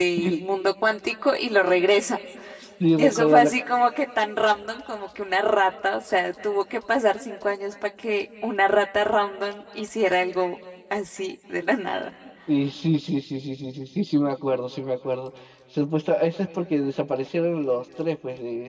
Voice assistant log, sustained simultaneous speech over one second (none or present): none